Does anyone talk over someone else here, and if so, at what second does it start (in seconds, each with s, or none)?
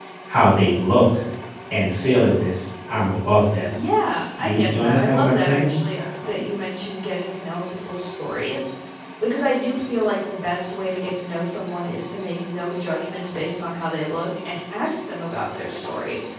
4.4 s